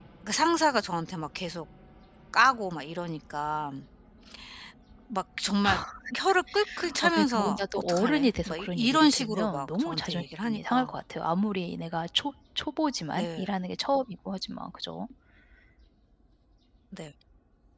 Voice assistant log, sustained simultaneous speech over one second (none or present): present